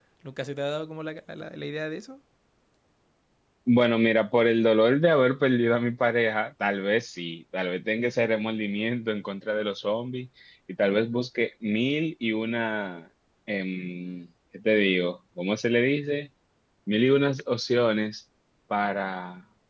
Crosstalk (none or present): none